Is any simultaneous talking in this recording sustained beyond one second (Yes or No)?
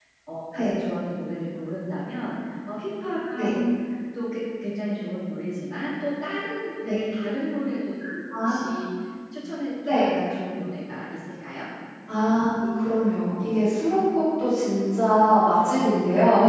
No